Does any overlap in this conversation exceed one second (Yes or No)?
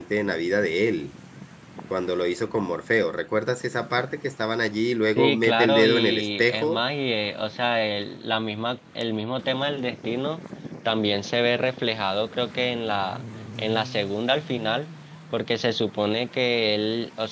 Yes